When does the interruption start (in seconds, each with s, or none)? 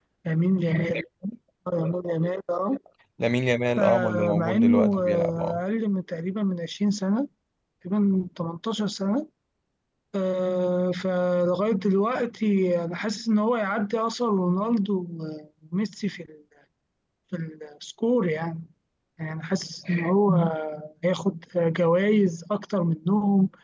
3.8 s